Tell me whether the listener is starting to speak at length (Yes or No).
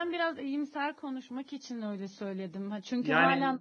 No